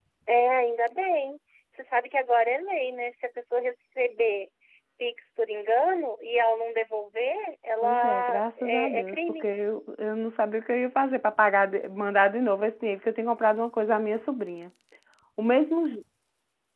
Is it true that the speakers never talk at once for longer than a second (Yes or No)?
No